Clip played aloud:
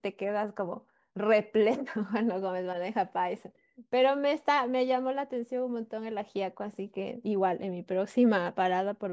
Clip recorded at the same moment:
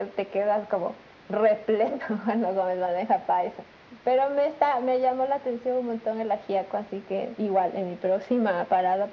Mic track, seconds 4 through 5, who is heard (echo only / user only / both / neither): echo only